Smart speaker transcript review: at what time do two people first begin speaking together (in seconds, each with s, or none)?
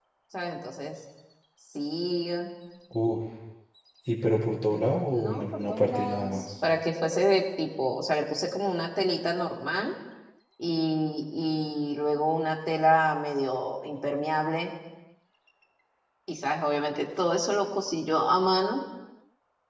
4.7 s